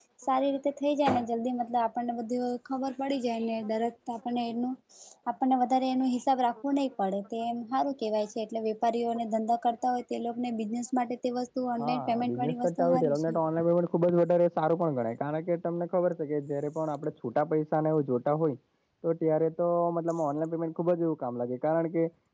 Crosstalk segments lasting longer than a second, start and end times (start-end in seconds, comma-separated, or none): 11.8-13.4